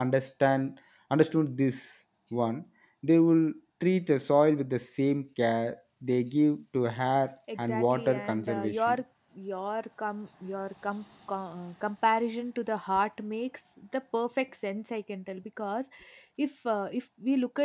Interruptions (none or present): present